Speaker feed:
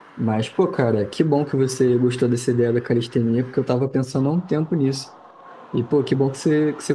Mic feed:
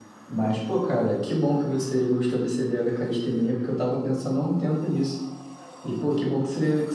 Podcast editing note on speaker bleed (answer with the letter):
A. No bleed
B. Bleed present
B